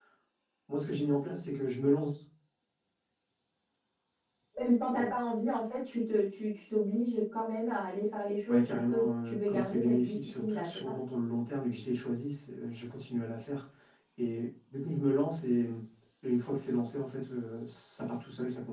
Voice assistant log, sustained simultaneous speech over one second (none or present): present